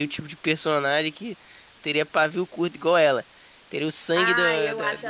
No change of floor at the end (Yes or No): No